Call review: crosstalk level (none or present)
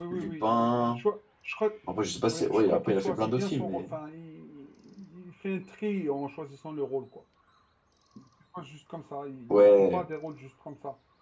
present